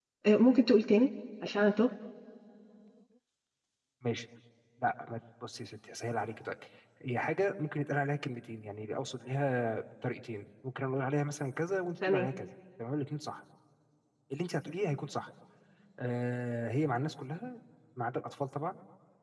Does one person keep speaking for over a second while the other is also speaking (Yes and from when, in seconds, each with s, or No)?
No